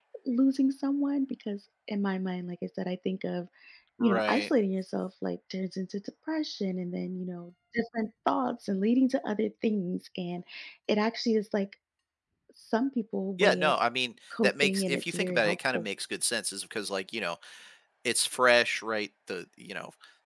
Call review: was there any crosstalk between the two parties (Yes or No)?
Yes